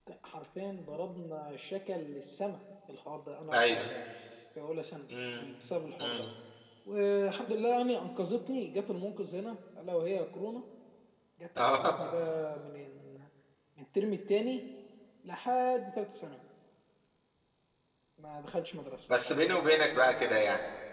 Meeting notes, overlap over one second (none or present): none